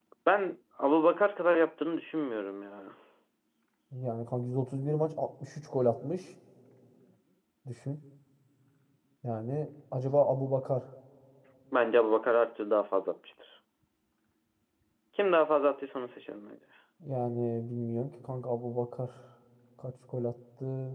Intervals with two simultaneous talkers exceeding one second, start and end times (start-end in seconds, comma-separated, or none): none